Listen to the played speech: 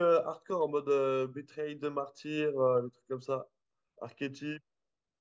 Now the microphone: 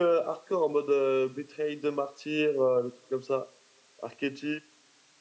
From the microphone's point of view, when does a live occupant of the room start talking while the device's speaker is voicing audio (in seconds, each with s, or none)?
none